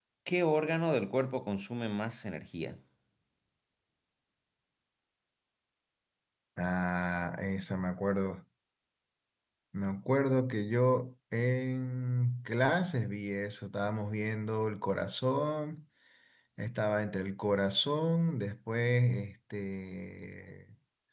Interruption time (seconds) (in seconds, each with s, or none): none